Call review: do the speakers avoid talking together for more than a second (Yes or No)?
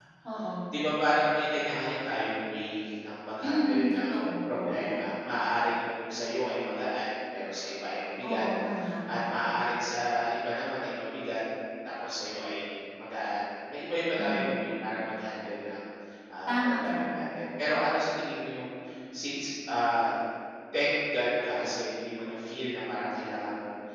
No